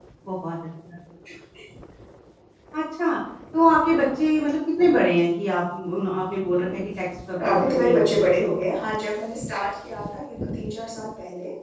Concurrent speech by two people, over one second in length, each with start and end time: 7.5-8.7

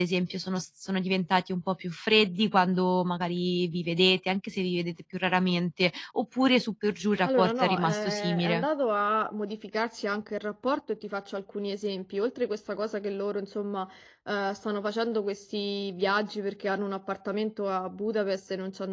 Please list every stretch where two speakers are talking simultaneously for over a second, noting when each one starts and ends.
7.2-8.7

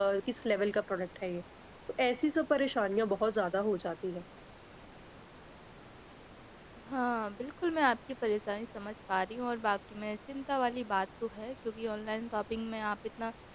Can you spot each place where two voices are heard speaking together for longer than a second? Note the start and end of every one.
none

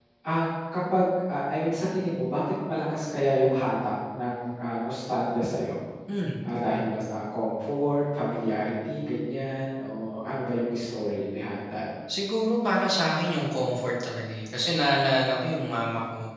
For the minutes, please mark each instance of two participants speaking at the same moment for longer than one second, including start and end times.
none

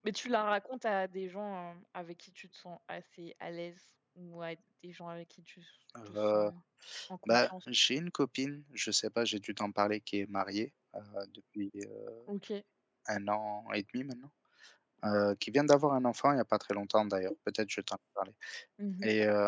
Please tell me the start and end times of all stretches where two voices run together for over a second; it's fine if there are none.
none

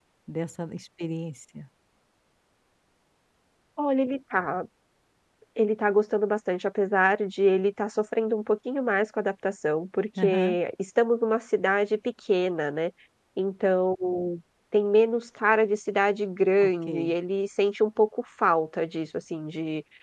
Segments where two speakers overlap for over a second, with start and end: none

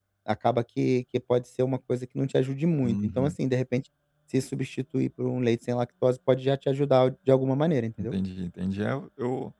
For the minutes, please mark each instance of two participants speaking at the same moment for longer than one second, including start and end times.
none

